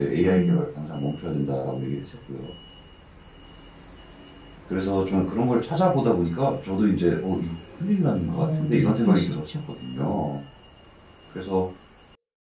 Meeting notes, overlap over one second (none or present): present